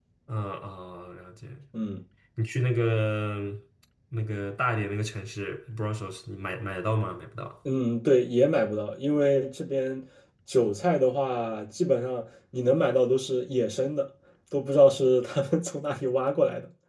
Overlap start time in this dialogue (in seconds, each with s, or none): none